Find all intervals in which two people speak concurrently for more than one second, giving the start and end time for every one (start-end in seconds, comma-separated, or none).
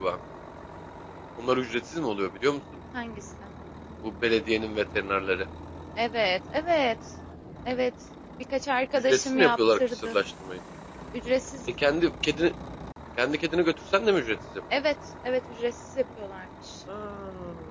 8.9-10.2